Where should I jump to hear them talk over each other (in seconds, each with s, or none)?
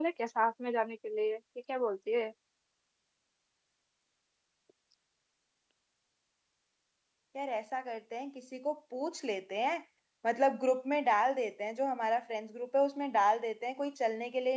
none